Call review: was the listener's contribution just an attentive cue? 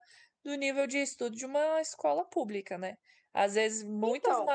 Yes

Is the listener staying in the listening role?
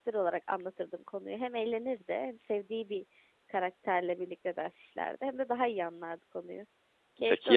No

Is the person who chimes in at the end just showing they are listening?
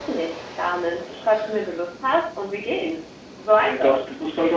No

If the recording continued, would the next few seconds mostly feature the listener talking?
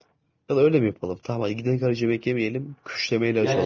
No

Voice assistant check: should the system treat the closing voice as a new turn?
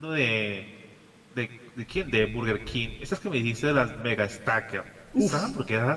No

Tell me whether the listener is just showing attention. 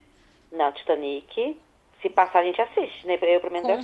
No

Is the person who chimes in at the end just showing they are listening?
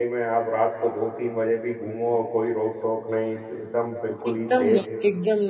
No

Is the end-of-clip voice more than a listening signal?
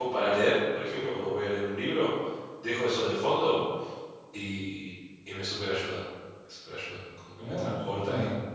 Yes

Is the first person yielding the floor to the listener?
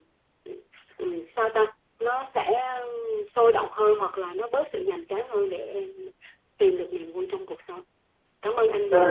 Yes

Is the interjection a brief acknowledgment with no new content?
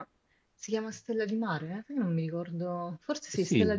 No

